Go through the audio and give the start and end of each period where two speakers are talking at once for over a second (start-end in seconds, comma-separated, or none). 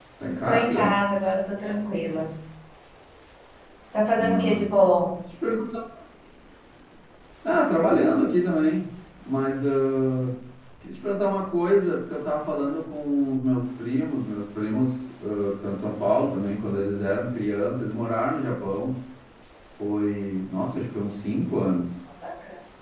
none